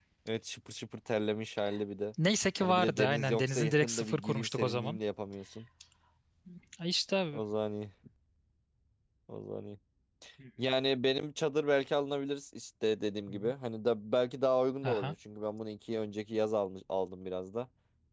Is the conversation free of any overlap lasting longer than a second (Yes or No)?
No